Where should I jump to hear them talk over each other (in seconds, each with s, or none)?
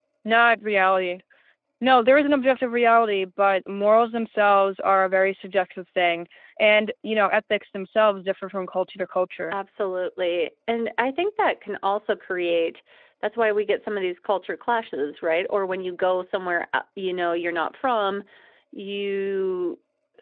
none